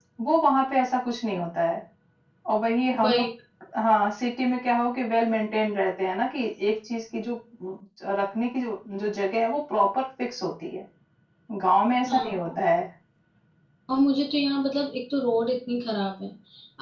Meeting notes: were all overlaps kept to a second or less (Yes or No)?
Yes